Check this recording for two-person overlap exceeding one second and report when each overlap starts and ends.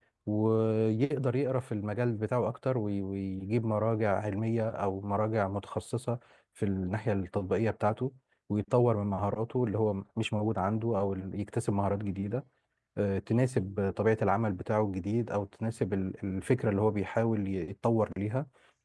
none

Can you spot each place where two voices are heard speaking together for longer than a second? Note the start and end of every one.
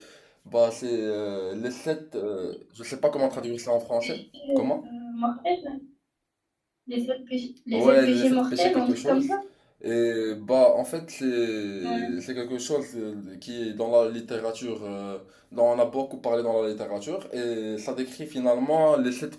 7.7-9.2

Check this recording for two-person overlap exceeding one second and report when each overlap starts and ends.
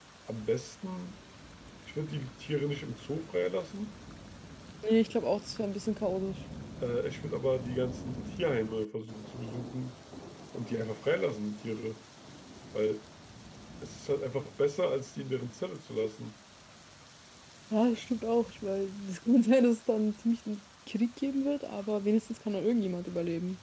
none

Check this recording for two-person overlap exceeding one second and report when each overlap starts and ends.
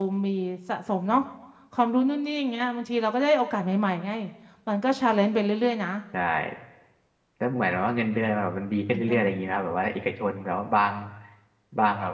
none

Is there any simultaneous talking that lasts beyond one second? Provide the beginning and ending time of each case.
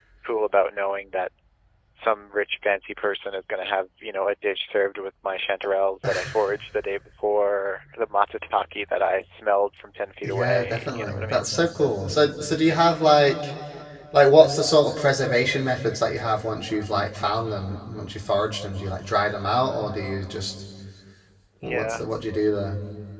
10.2-11.4

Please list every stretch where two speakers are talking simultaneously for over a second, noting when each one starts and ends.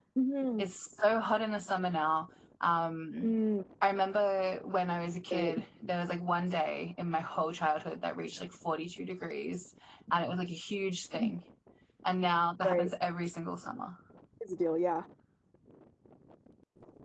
none

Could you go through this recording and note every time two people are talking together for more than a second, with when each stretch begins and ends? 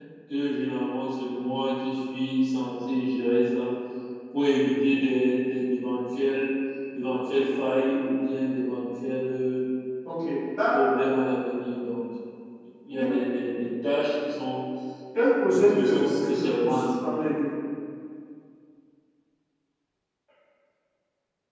15.6-17.2

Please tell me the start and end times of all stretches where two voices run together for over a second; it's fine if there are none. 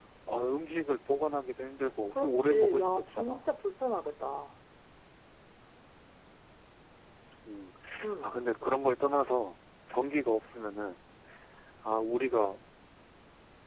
2.1-3.4

